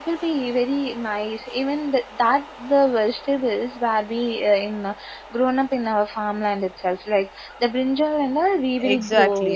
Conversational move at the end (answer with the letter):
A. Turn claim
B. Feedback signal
A